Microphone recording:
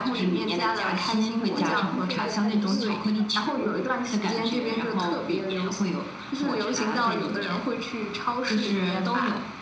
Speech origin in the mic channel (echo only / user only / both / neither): both